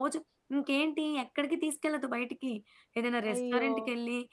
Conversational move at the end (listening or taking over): listening